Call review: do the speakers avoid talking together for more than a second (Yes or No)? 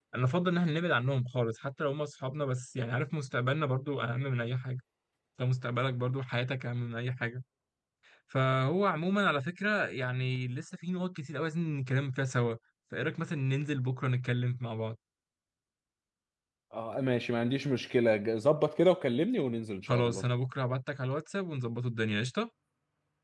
Yes